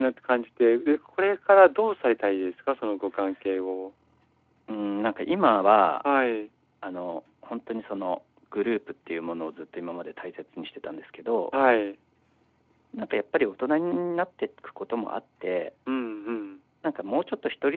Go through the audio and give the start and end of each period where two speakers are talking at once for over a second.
none

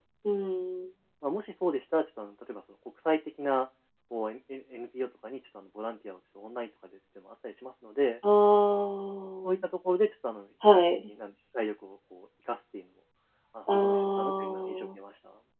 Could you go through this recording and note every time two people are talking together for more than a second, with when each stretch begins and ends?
13.7-15.0

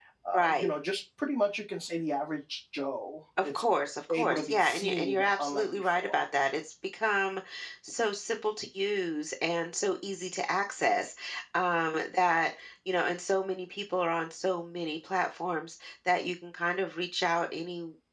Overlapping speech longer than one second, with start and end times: 4.1-6.2

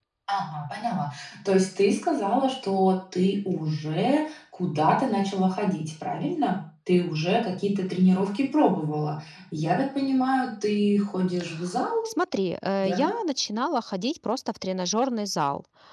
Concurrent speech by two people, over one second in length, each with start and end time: none

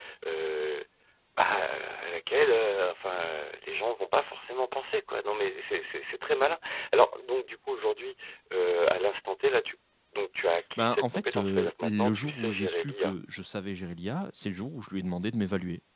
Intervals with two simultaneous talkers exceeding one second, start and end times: 10.8-13.2

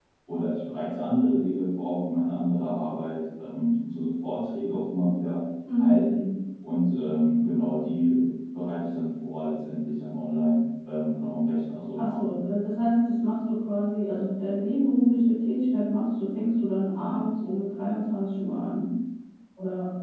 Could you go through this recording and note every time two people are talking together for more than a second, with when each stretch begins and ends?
none

